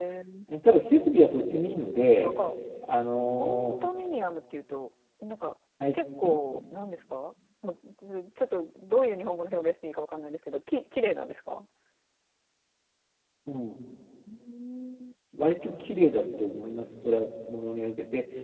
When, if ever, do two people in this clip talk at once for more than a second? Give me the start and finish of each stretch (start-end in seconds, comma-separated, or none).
none